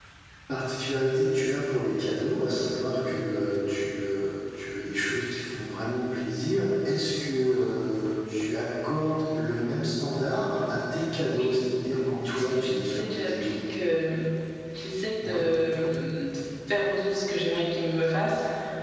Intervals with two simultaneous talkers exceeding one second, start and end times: 12.3-13.5

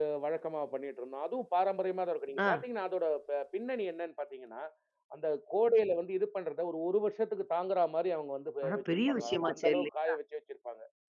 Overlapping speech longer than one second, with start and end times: 8.7-10.1

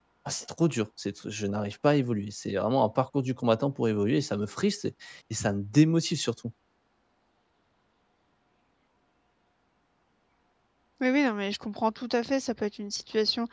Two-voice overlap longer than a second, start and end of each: none

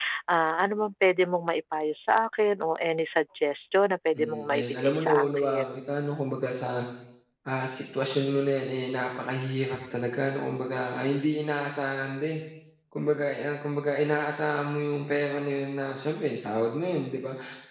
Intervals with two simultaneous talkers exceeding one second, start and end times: 4.2-5.8

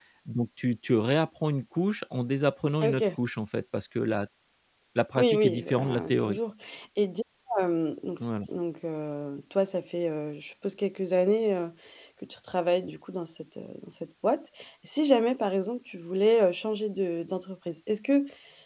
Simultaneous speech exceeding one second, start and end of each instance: 5.2-6.4

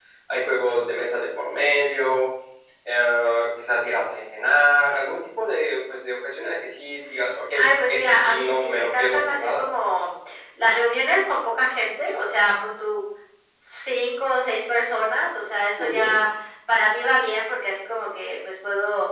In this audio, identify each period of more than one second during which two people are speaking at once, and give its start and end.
7.5-9.6

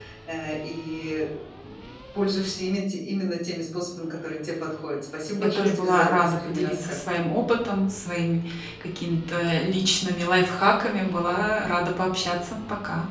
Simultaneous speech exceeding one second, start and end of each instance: 5.4-7.0

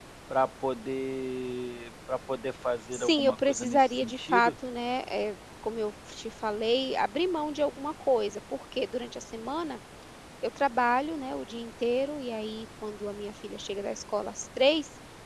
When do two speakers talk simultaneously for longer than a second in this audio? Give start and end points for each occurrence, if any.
2.9-4.5

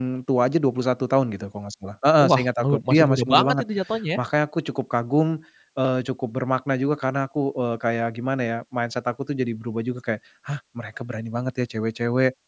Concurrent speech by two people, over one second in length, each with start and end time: 2.2-3.6

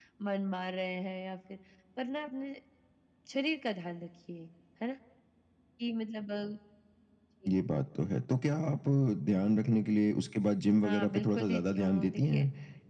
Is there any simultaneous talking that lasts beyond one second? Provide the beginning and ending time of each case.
10.8-12.4

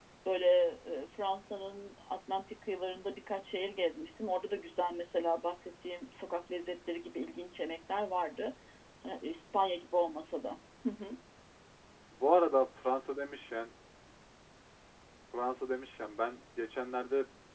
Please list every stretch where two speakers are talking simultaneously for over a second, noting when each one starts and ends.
none

